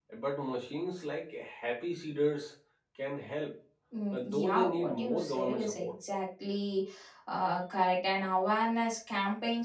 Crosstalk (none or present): present